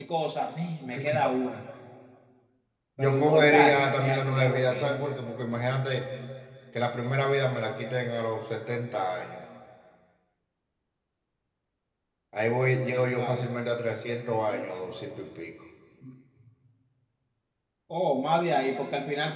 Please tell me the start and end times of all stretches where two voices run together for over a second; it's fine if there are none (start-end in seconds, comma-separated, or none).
3.0-5.0